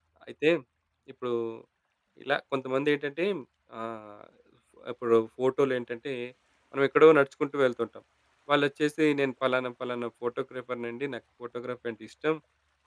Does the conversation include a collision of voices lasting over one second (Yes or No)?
No